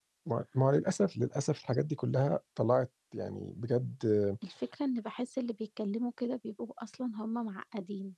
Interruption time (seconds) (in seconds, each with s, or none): none